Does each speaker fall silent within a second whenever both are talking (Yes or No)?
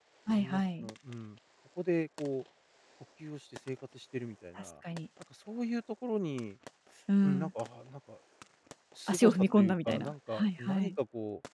No